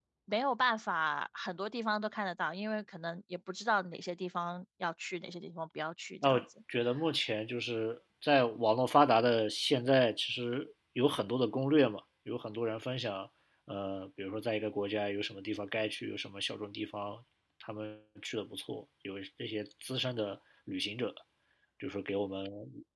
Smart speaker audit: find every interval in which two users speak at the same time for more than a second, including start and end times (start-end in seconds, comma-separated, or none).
none